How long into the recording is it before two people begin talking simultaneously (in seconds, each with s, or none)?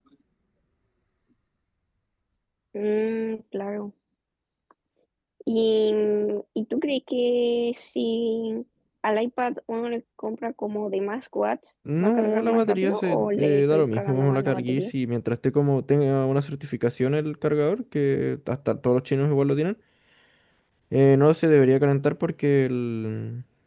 11.8 s